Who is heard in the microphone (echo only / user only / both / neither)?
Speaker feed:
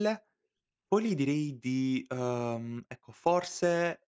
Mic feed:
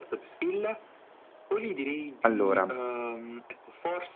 both